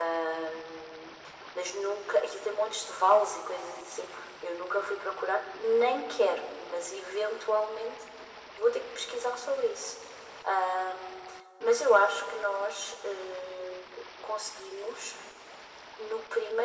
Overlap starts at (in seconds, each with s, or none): none